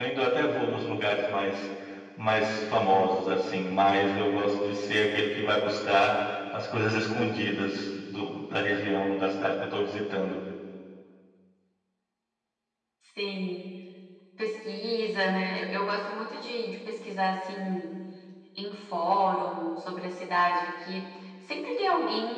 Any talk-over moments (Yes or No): No